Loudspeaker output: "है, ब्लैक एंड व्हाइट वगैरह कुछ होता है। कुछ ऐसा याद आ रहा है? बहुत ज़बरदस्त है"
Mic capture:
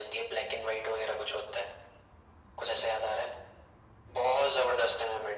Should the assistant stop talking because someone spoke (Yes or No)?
No